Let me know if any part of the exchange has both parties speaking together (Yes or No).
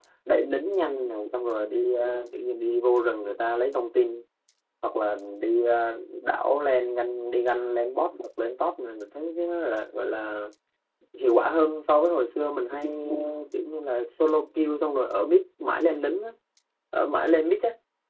No